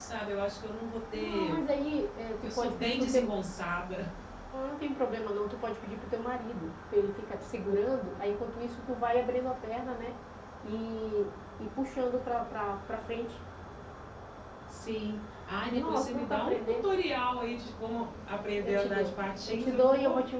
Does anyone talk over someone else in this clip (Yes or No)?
Yes